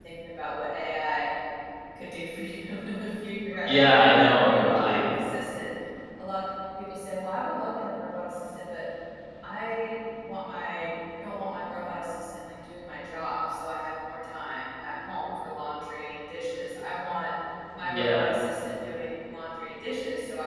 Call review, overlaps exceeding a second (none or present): present